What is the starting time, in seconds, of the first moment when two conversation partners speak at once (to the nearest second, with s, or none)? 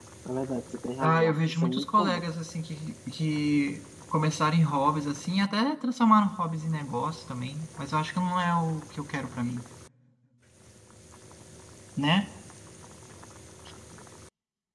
1 s